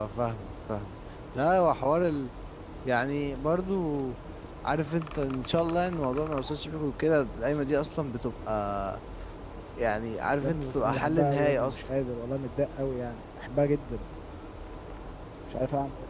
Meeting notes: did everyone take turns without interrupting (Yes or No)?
No